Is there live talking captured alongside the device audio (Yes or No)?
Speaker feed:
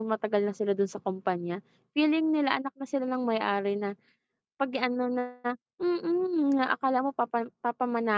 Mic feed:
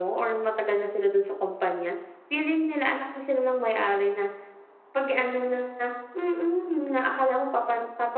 No